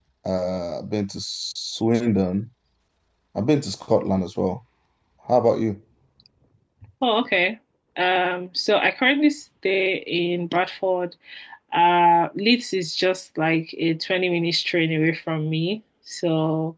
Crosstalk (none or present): none